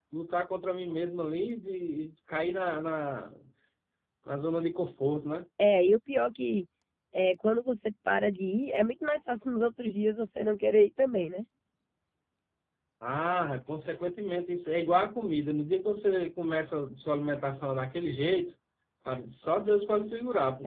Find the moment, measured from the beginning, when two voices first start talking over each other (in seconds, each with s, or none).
none